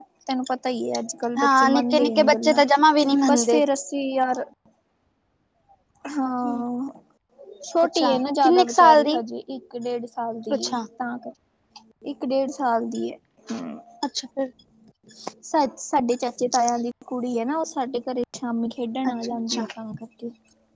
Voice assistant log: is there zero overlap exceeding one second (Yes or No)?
No